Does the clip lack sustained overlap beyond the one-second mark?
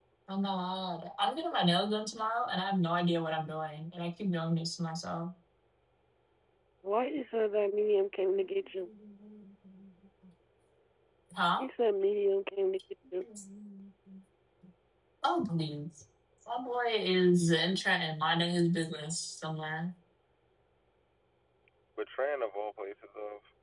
Yes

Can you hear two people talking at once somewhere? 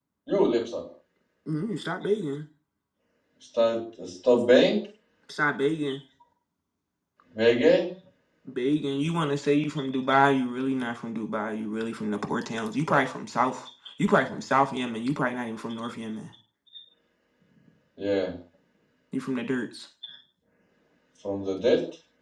No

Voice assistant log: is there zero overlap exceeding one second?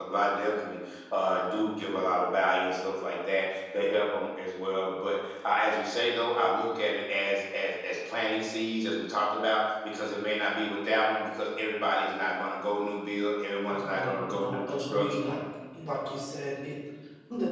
No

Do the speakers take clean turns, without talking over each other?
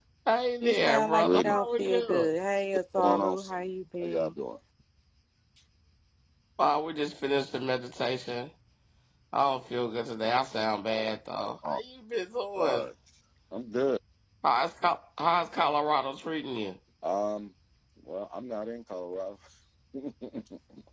No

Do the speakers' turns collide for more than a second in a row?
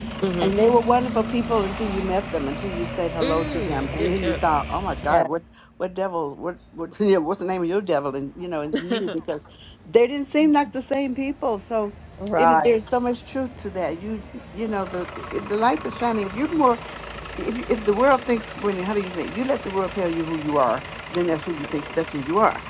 Yes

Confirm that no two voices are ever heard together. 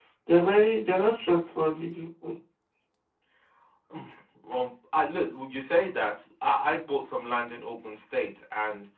Yes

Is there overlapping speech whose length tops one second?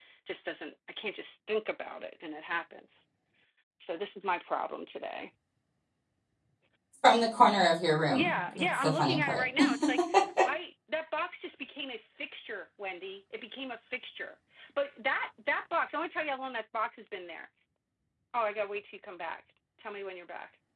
Yes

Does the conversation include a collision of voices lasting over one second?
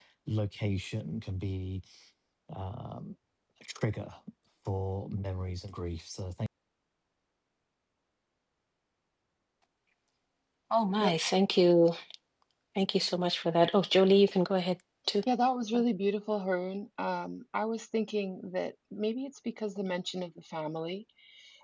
No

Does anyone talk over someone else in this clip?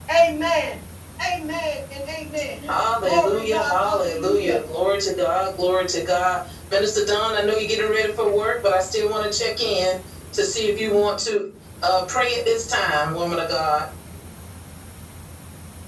Yes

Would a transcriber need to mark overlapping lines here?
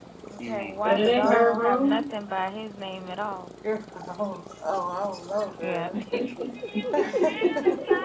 Yes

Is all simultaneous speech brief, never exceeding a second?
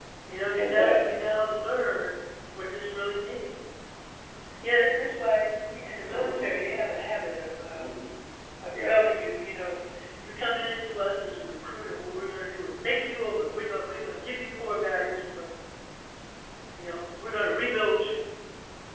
Yes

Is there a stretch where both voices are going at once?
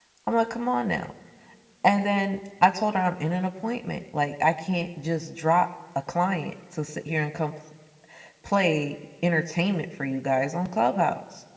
No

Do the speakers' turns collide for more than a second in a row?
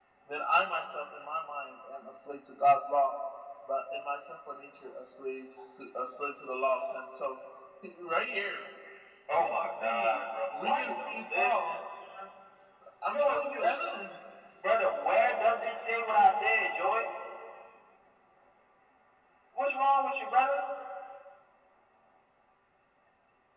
Yes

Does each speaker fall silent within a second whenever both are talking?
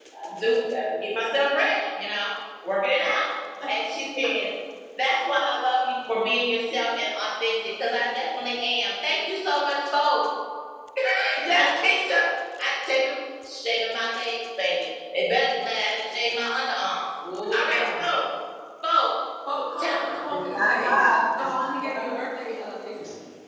No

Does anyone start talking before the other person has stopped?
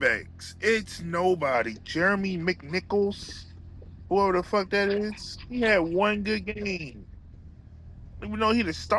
No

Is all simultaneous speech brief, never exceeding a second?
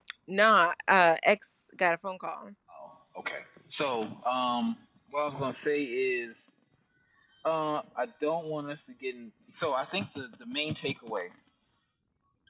Yes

